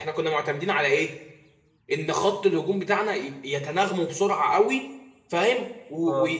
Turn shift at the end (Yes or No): No